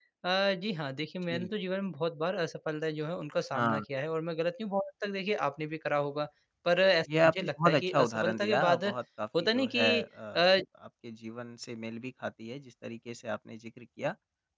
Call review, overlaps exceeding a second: present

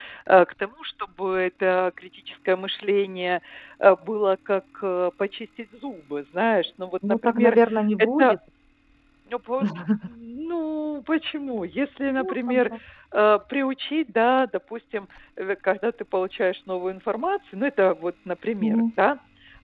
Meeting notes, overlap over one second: none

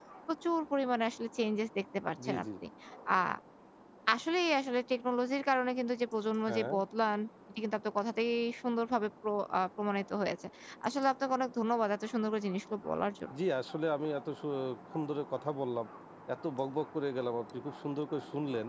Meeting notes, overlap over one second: none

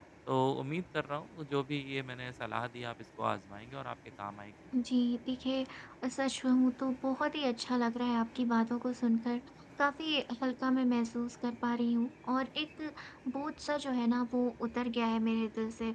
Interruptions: none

